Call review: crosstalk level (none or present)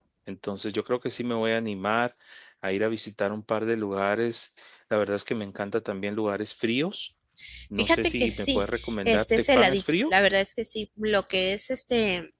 present